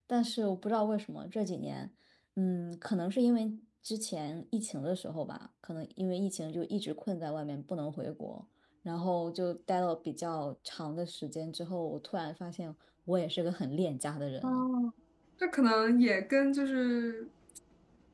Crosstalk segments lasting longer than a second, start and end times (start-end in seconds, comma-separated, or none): none